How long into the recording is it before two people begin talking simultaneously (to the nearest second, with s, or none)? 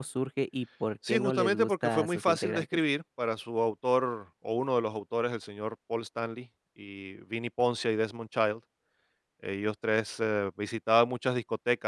1 s